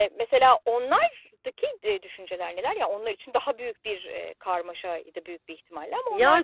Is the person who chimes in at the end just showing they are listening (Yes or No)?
No